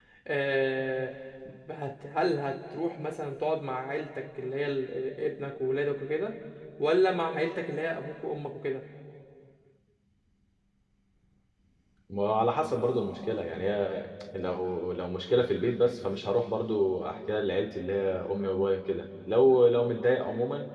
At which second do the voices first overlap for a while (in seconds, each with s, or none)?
none